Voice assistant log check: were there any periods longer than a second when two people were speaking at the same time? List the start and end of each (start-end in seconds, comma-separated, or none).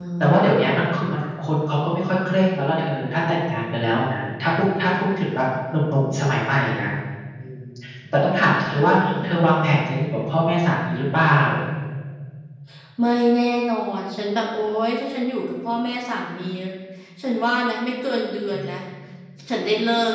none